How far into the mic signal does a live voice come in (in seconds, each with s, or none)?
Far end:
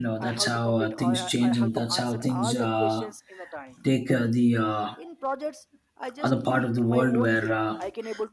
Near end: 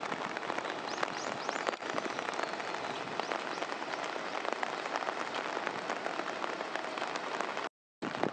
none